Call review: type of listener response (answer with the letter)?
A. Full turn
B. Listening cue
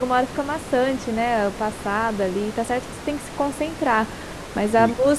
B